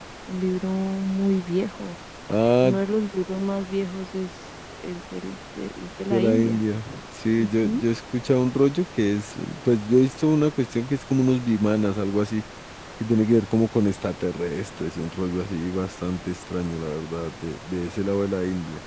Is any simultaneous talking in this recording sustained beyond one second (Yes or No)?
No